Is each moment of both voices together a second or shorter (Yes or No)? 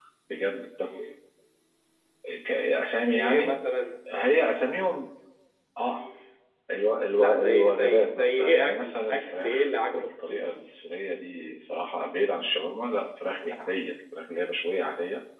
No